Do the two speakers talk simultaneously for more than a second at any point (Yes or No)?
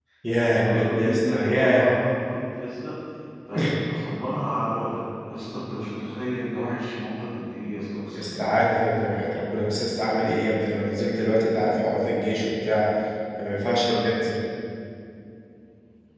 Yes